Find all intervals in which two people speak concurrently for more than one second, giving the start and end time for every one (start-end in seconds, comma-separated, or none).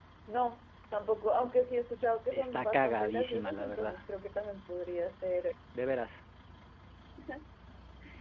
2.3-4.0